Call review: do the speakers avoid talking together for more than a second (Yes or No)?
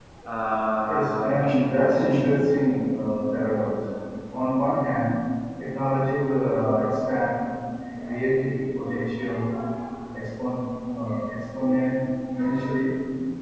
No